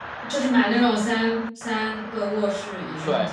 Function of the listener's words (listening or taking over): taking over